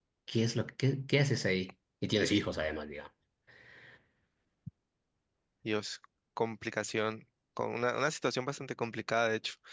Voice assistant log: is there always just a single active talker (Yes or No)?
Yes